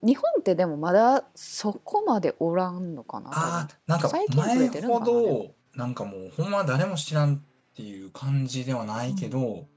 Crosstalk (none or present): present